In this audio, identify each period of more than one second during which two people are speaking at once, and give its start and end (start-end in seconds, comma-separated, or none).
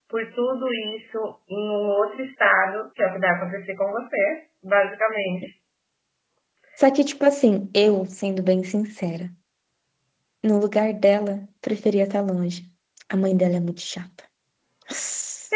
none